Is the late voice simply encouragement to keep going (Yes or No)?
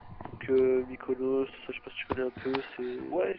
No